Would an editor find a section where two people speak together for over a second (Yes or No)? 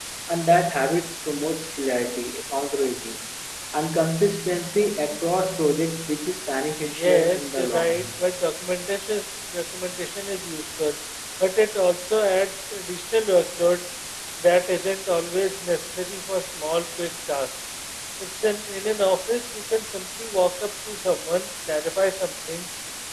Yes